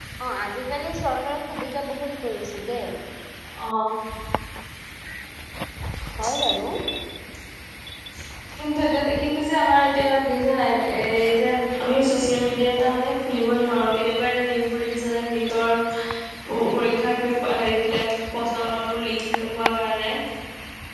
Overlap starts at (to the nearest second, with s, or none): none